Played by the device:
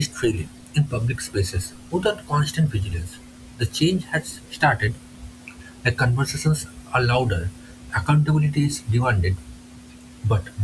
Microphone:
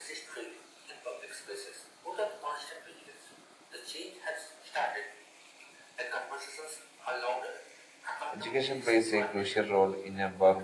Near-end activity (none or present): present